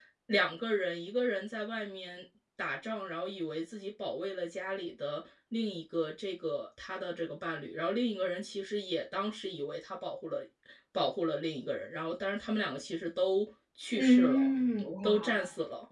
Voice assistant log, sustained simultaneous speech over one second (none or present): none